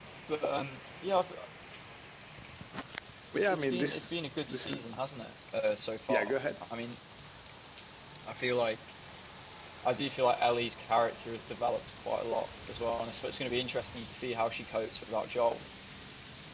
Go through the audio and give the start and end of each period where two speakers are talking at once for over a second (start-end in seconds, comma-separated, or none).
3.3-4.9